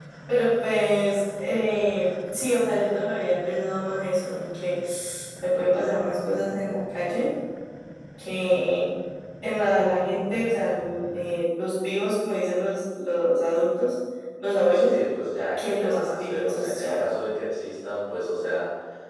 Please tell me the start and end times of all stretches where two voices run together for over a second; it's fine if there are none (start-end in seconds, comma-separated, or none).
15.6-17.0